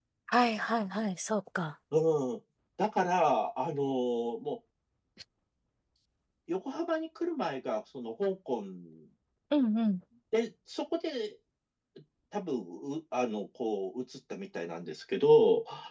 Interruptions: none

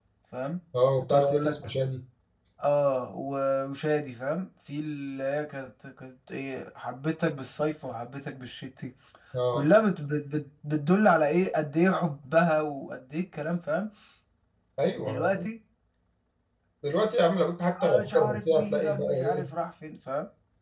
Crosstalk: present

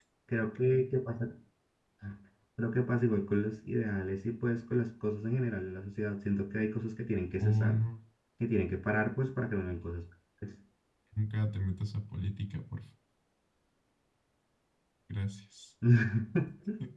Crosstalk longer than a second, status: none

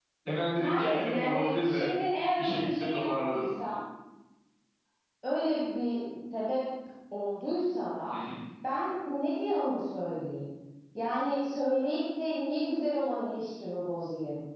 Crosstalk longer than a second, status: present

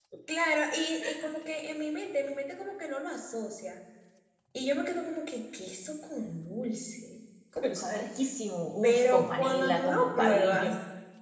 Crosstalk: present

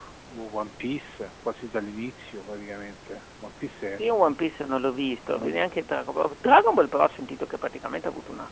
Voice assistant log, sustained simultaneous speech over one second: none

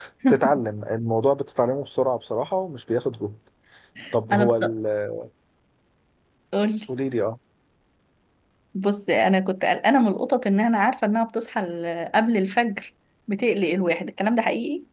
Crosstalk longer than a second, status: none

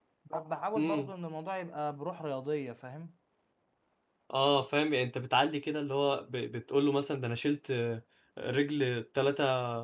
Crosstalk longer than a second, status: none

